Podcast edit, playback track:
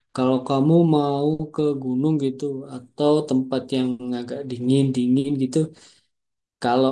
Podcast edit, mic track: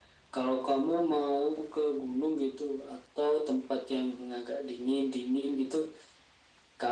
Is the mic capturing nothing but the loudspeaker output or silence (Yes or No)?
Yes